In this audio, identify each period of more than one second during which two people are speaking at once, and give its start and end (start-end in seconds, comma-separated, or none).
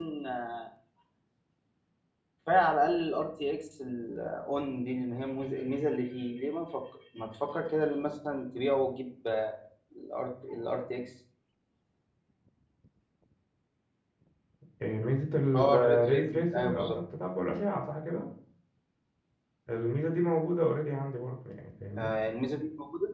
15.5-17.0